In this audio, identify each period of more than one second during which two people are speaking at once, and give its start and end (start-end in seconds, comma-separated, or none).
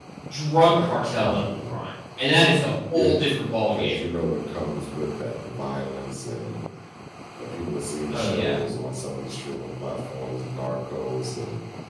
0.6-1.8